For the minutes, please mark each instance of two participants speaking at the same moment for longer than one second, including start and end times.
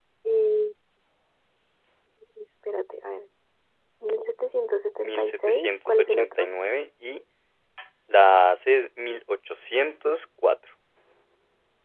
5.0-6.5

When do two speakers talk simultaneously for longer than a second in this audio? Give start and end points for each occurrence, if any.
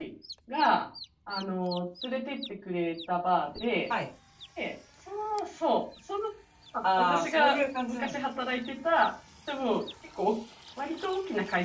7.0-8.2

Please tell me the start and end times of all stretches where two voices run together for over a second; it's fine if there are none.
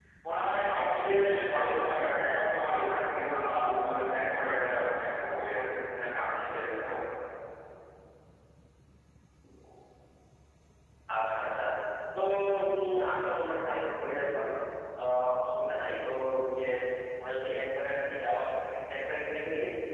none

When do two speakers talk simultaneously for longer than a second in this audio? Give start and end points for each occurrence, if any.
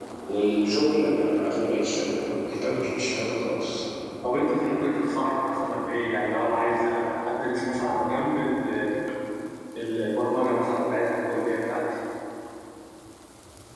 none

